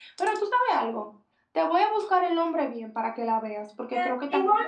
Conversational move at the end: taking over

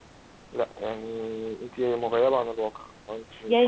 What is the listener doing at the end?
taking over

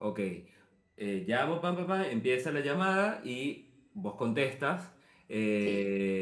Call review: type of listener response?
listening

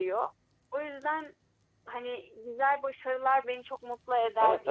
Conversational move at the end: taking over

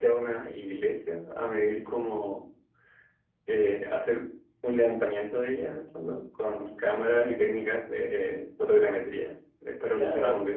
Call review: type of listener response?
taking over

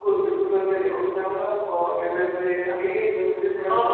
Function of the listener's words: listening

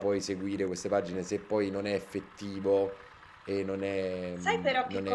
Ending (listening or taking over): taking over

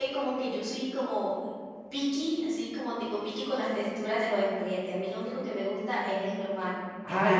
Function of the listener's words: taking over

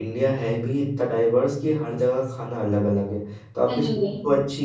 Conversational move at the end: listening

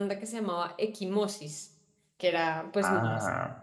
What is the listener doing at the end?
listening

